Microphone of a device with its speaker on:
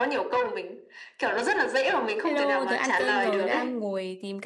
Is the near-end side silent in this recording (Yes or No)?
No